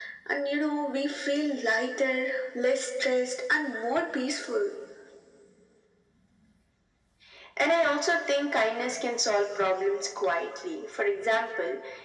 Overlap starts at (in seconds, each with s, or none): none